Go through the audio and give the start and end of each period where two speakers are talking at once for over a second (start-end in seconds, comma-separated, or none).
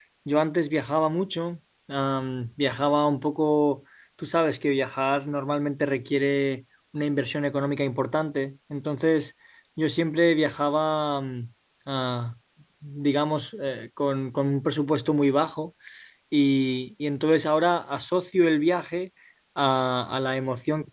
none